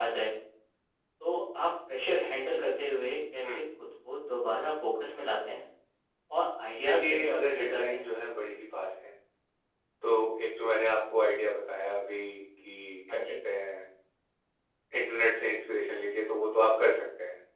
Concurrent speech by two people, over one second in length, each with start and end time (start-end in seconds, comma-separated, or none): 6.8-8.0